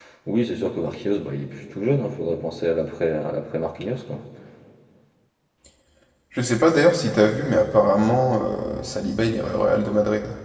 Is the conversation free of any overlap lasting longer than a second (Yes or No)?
Yes